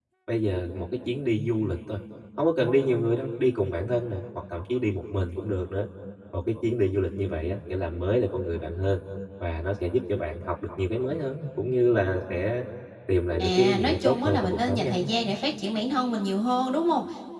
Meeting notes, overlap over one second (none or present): present